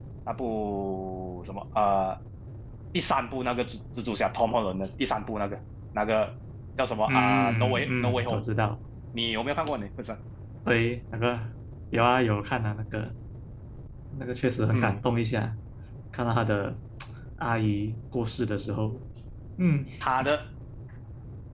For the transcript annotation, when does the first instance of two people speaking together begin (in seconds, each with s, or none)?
7.1 s